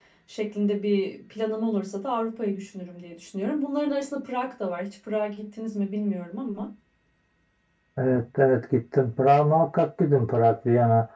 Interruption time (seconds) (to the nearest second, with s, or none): none